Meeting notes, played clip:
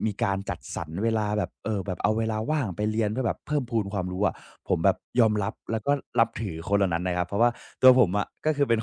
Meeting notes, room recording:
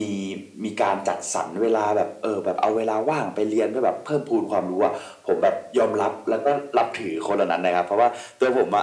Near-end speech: none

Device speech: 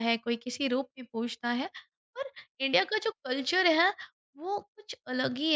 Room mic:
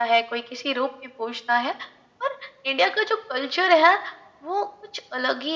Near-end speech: none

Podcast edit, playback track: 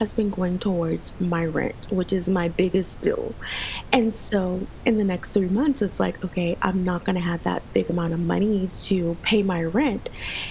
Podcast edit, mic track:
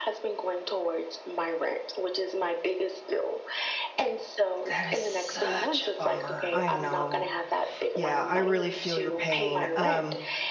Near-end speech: present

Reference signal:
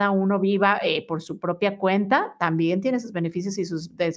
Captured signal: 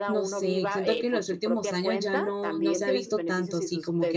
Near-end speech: present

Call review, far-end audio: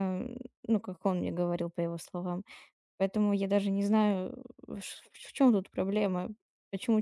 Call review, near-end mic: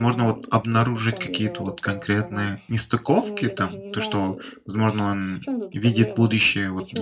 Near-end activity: present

